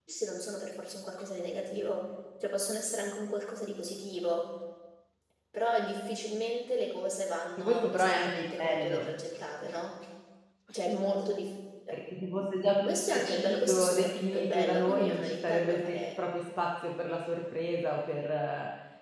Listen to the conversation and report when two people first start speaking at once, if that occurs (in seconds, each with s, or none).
7.6 s